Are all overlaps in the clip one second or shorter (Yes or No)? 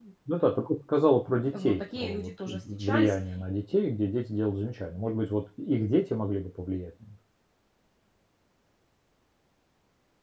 No